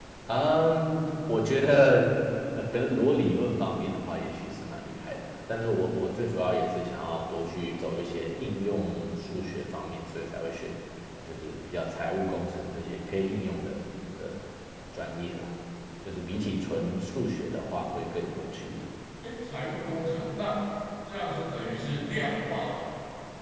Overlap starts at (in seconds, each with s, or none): none